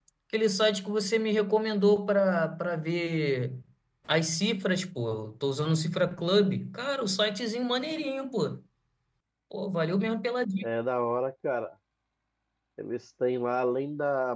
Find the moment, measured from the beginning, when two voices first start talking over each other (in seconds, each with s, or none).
none